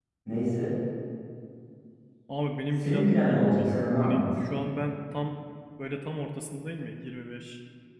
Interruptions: present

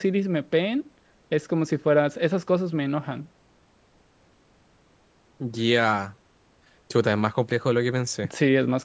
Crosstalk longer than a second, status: none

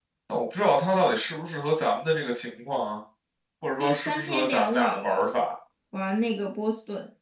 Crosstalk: present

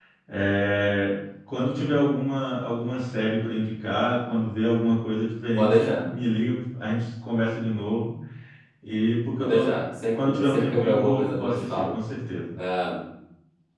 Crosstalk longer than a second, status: present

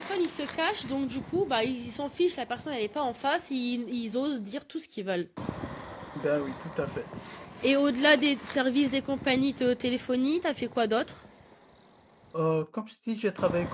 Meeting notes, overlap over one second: none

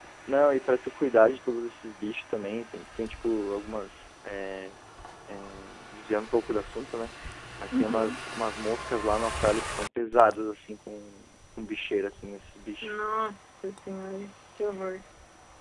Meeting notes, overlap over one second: none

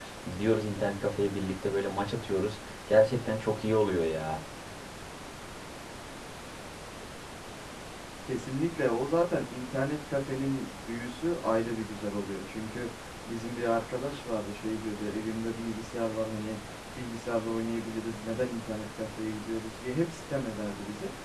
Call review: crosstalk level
none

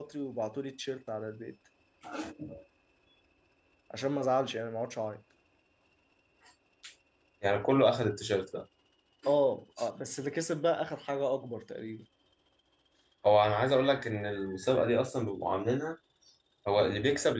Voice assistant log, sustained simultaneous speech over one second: none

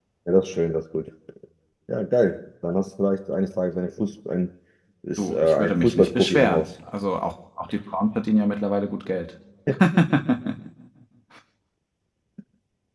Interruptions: present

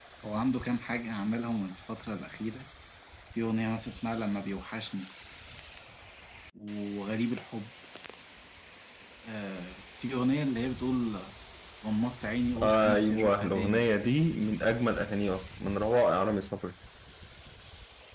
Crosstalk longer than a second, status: present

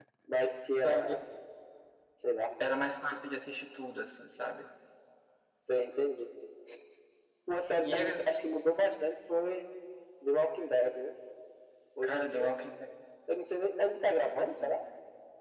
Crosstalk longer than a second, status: none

